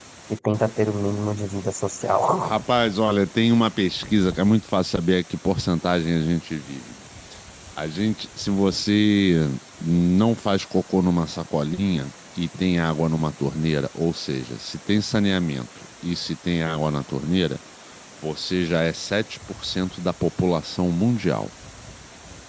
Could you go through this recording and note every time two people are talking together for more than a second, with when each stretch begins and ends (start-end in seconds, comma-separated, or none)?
none